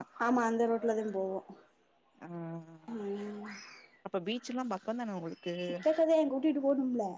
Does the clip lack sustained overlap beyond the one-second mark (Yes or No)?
Yes